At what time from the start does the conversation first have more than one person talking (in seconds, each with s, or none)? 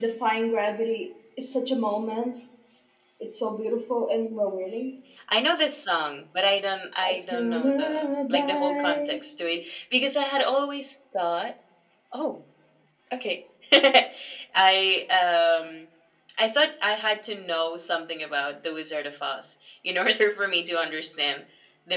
7.0 s